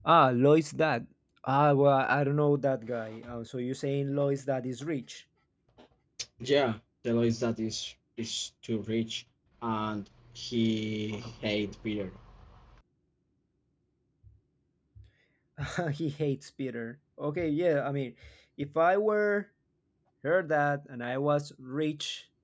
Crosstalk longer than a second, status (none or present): none